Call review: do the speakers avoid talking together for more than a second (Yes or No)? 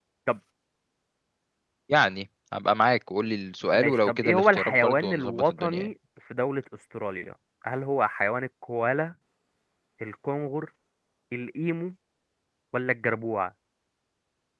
No